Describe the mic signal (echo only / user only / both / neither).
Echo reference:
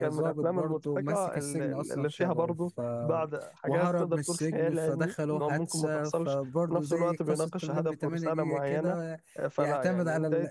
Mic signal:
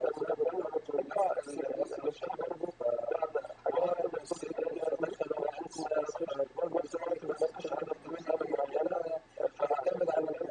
echo only